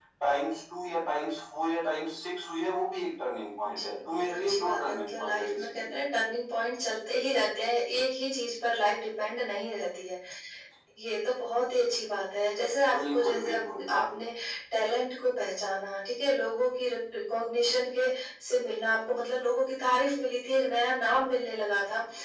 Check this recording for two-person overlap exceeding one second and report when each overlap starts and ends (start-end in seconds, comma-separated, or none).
3.6-5.8, 12.9-14.2